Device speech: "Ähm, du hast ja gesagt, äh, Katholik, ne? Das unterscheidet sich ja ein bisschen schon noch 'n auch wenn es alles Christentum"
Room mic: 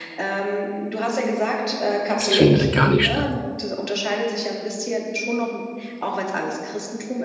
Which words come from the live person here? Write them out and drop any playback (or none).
Das findet ja gar nicht statt.